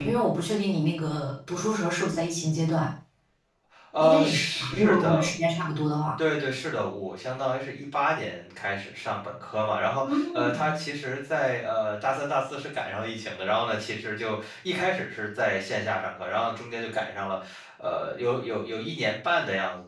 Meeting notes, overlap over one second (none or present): present